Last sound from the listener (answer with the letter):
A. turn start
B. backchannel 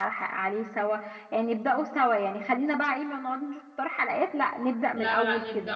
A